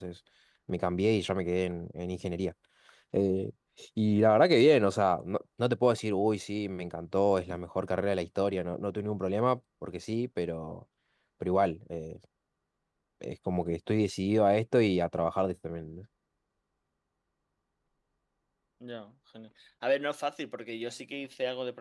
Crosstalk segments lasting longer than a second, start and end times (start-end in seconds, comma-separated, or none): none